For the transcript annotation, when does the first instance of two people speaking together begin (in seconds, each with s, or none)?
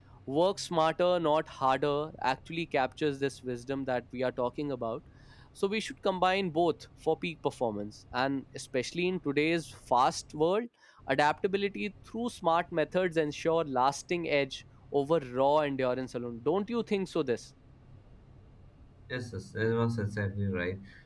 none